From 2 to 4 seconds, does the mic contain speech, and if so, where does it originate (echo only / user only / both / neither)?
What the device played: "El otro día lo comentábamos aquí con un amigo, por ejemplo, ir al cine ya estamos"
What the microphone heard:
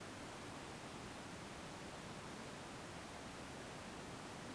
neither